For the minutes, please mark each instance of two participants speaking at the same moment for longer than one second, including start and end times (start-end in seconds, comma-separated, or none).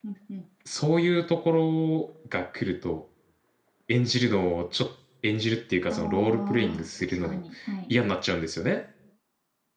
5.9-7.4